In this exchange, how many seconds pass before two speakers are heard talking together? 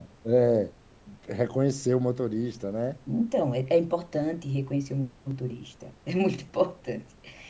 none

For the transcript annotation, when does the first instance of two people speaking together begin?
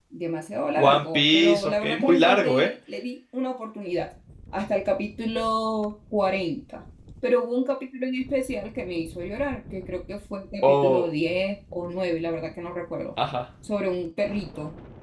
0.8 s

